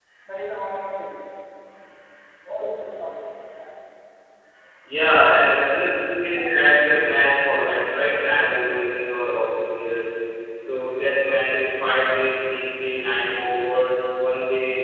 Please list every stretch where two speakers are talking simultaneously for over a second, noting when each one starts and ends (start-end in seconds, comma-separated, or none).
none